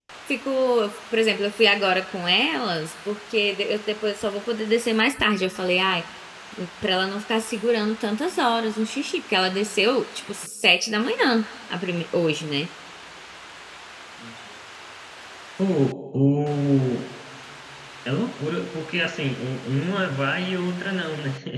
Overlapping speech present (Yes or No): No